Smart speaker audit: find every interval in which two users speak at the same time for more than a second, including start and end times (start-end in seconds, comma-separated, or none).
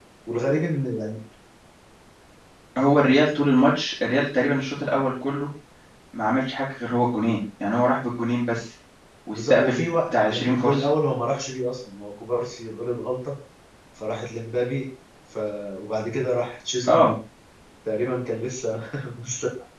9.3-10.8